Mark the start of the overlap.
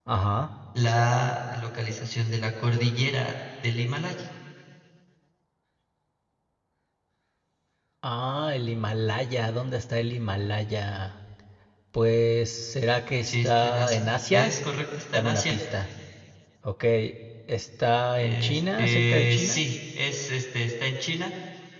13 s

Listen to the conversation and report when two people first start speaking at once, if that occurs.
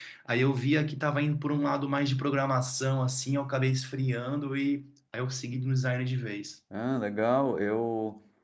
none

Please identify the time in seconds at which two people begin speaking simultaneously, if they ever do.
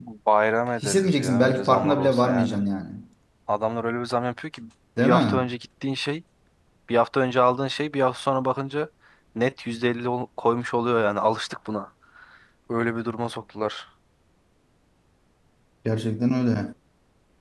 1 s

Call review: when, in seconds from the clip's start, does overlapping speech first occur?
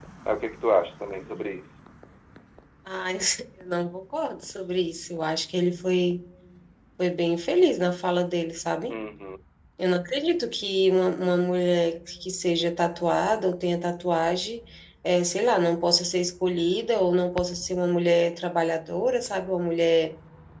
none

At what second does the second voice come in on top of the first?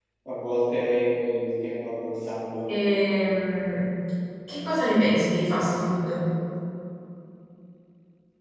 none

